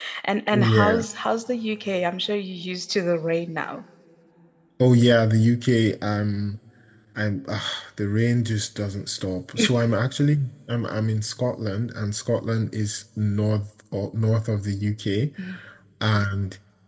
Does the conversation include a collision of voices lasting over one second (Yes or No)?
No